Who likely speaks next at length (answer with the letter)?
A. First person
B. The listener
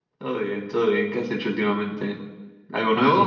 B